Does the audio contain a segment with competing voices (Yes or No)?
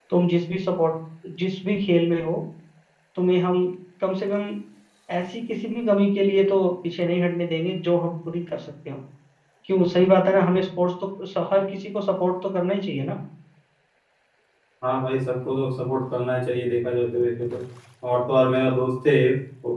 No